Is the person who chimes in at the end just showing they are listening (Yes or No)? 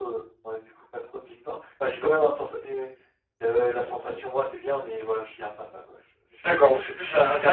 No